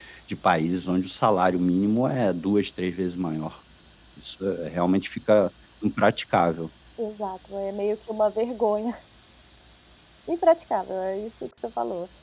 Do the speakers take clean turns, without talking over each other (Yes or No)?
Yes